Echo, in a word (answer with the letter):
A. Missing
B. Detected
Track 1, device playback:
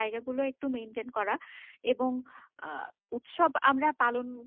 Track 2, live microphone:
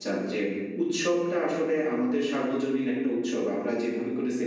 A